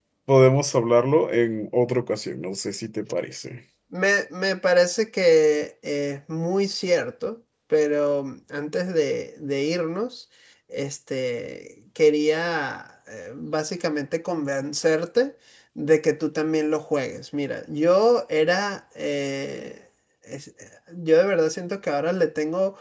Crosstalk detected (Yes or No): No